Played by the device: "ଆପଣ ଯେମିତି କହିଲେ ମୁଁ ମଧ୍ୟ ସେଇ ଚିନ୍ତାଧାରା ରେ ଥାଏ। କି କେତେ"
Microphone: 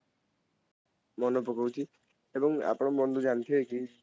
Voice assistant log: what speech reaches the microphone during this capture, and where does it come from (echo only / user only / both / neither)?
user only